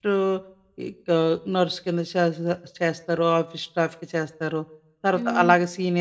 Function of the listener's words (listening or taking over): listening